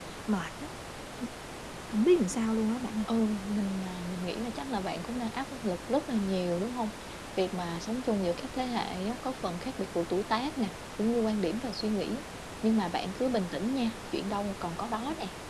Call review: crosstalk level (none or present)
none